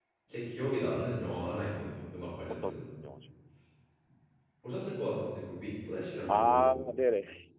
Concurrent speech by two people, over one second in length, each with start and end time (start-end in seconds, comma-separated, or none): none